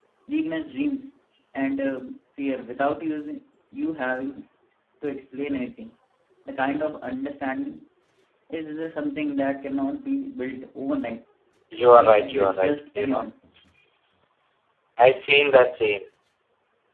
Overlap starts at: 12 s

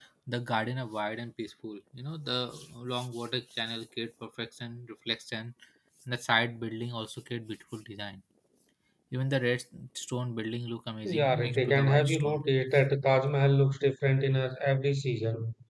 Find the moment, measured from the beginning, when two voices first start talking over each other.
11 s

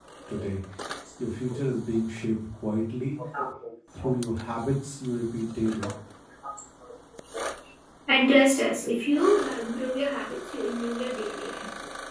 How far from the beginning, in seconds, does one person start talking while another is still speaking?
none

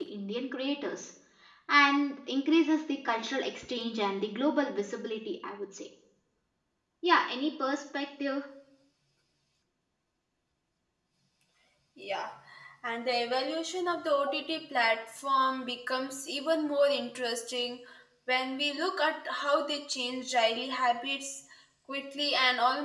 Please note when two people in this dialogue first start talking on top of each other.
none

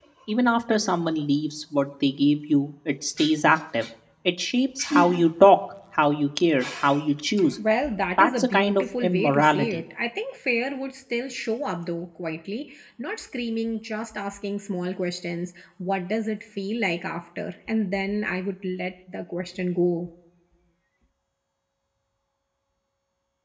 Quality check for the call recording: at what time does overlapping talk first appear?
8 s

